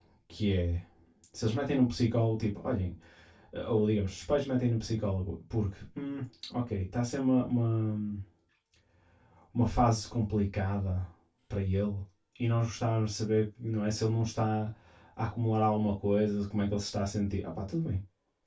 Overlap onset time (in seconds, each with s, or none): none